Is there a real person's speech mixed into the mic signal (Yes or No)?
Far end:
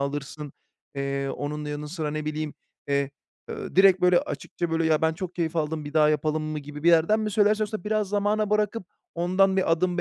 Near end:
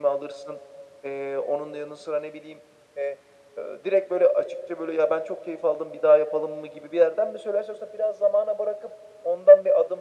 No